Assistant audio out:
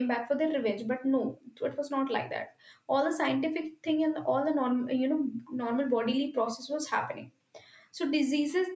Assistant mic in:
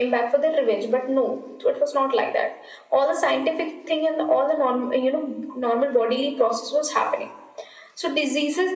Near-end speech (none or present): none